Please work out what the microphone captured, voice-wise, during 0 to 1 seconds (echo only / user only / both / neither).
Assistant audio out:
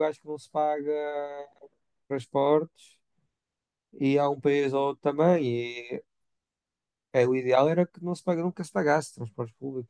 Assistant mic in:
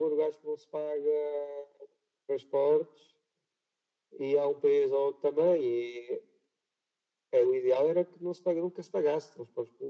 echo only